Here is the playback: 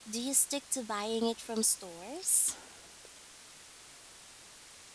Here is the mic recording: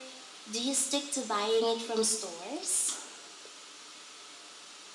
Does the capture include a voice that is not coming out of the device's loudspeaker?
No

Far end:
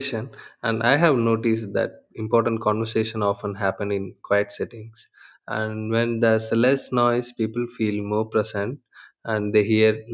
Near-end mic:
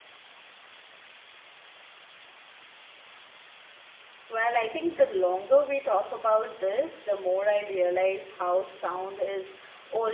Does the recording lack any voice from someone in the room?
No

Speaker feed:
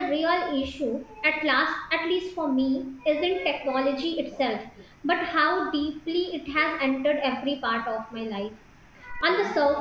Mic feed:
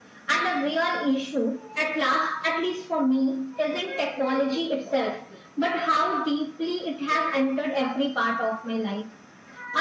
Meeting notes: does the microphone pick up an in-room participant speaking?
No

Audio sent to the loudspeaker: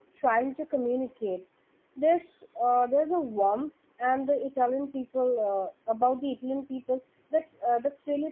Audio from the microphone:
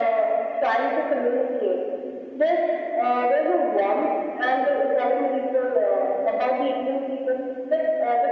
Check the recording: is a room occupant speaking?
No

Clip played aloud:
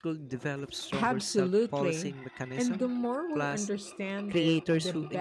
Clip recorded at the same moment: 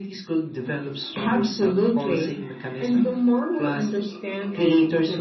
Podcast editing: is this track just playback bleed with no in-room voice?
Yes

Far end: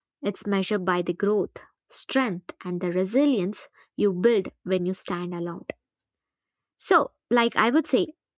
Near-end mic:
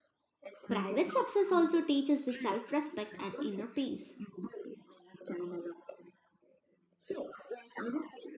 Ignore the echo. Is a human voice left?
Yes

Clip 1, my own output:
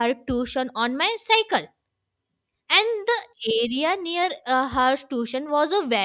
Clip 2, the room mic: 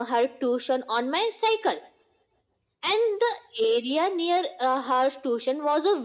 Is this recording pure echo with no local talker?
Yes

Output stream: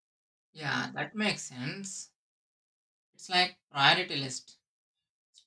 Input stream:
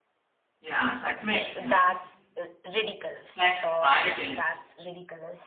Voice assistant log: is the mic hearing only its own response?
No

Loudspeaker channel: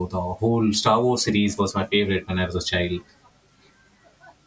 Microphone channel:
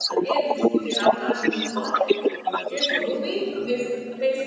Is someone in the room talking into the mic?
Yes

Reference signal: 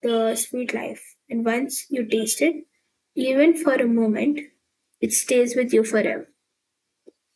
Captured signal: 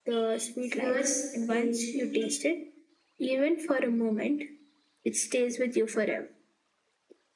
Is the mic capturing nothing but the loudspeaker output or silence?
No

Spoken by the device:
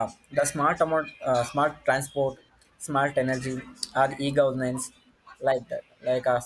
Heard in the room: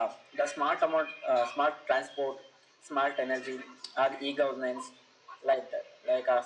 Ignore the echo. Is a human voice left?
No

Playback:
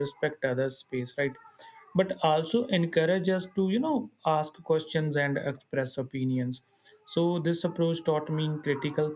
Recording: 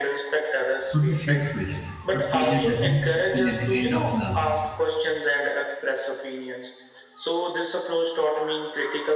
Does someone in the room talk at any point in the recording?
Yes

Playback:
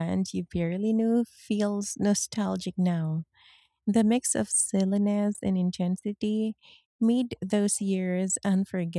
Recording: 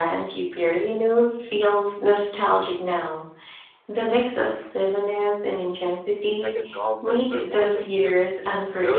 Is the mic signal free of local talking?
No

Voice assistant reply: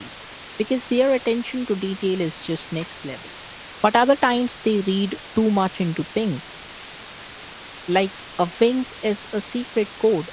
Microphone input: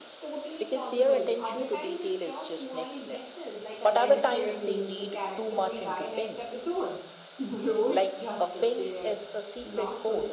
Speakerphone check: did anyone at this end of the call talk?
Yes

